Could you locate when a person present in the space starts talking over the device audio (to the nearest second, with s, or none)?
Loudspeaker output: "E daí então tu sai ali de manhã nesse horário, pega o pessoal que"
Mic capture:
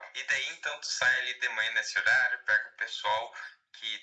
none